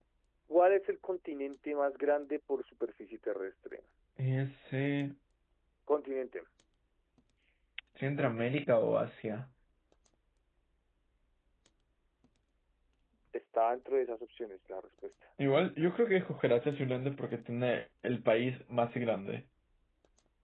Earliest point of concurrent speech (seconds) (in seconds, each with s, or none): none